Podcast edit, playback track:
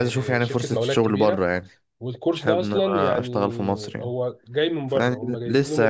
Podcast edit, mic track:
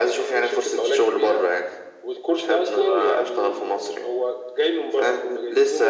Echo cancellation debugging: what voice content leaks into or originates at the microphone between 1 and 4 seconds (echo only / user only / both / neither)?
echo only